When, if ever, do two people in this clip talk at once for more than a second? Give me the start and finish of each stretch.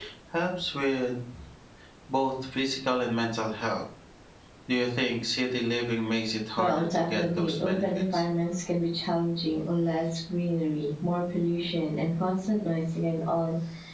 6.6-8.2

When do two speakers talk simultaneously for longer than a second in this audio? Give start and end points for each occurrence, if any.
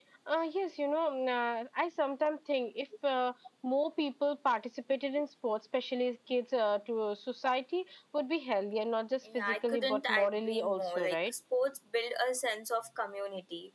9.3-11.3

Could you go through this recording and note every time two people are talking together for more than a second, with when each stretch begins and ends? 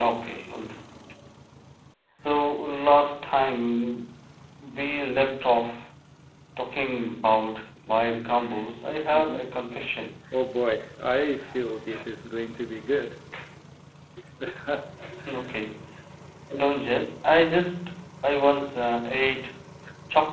none

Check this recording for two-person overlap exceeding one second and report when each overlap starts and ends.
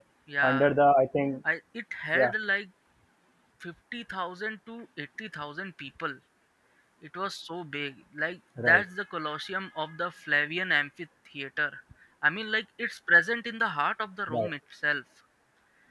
none

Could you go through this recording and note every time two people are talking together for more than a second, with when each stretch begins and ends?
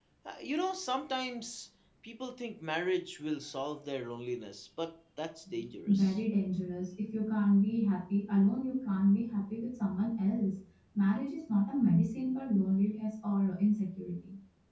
none

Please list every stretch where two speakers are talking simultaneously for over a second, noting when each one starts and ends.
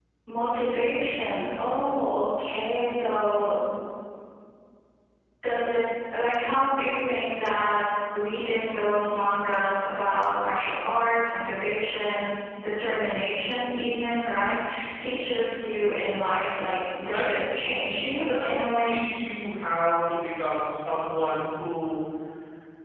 17.1-19.0

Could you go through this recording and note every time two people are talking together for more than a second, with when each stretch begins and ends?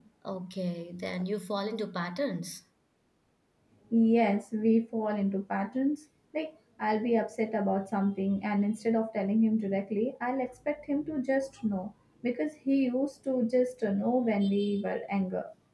none

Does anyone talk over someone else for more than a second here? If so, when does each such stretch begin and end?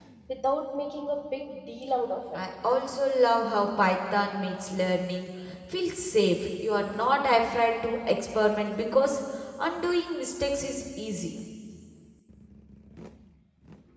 none

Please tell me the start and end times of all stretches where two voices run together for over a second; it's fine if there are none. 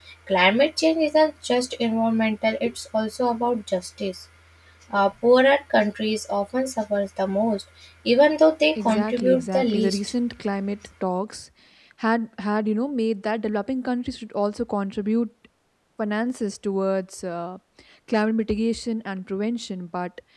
8.8-10.0

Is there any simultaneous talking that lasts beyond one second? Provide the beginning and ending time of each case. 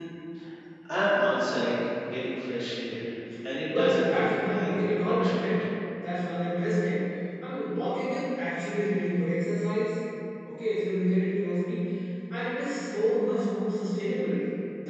3.8-5.5

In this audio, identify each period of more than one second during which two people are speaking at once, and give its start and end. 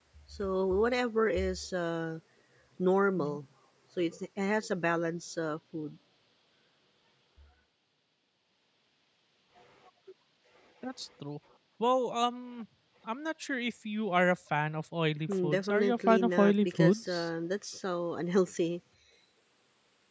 15.3-17.3

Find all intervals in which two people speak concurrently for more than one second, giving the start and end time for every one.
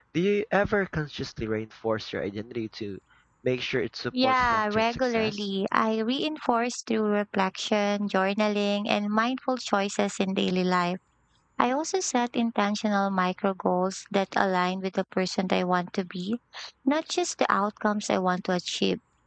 4.2-5.5

